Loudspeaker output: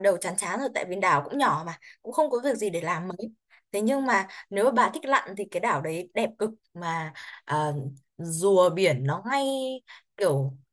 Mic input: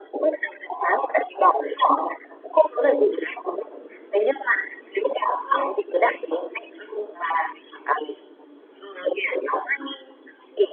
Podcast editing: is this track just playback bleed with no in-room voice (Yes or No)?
Yes